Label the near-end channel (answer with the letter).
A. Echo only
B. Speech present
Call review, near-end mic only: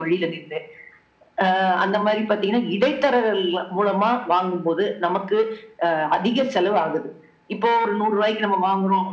A